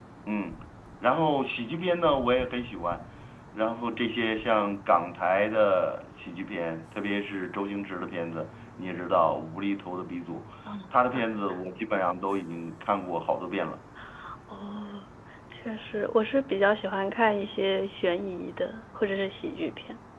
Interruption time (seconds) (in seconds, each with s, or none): none